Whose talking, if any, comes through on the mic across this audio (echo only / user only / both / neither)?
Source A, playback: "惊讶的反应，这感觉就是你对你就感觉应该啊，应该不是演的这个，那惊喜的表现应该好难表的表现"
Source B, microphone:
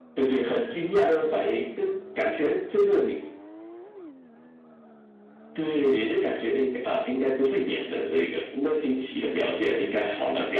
echo only